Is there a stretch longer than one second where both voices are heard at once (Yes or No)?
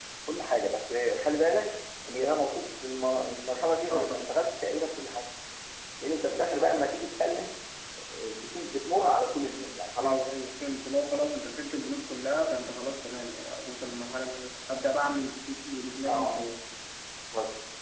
No